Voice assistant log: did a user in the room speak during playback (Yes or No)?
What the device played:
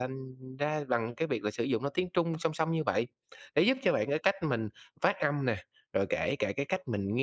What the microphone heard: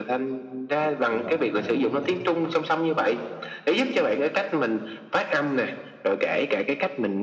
Yes